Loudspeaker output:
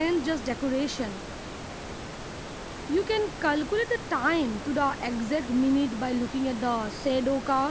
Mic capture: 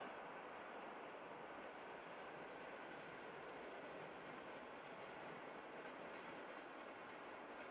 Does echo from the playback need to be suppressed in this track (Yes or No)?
No